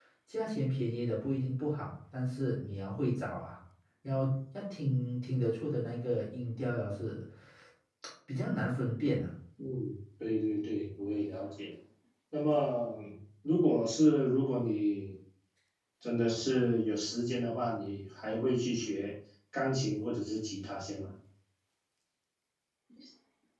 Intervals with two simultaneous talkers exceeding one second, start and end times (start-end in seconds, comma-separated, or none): none